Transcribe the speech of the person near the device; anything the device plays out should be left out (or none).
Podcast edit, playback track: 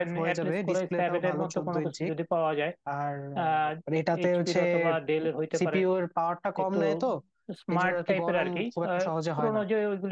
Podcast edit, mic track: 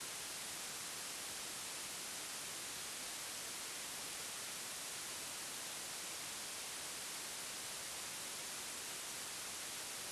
none